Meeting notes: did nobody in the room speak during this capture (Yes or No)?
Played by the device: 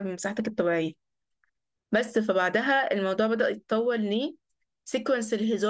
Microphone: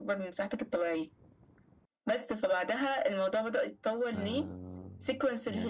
No